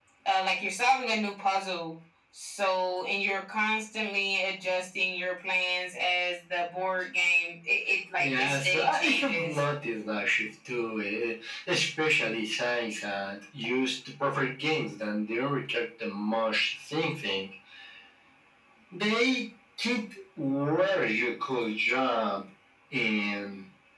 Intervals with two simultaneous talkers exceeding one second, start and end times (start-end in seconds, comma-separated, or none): 8.2-9.6